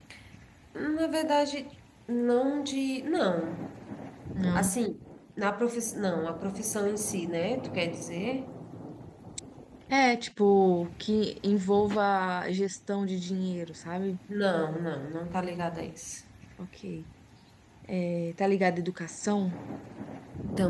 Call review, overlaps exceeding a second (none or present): none